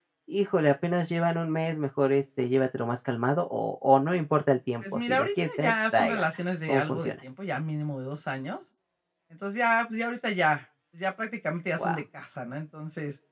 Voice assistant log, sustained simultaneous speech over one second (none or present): present